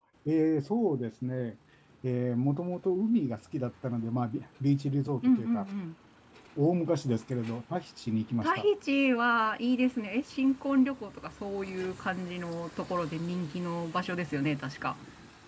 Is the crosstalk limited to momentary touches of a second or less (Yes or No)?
Yes